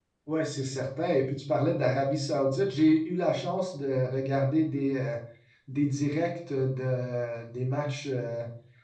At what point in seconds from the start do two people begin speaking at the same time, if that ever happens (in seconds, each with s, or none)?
none